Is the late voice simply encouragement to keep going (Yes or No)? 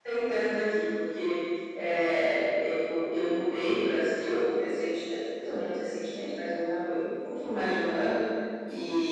Yes